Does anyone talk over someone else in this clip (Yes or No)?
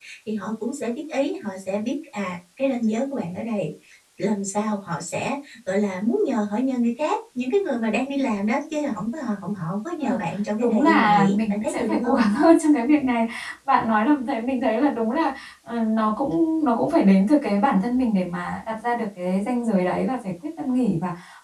Yes